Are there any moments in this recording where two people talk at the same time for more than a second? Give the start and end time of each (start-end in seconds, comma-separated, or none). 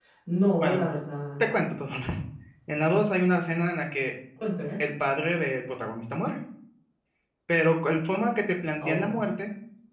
none